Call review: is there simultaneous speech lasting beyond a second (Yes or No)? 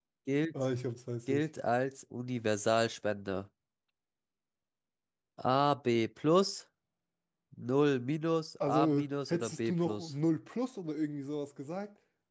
Yes